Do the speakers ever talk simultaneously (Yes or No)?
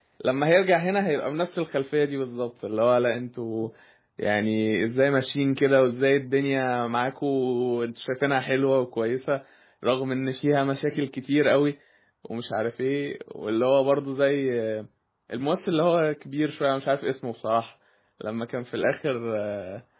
No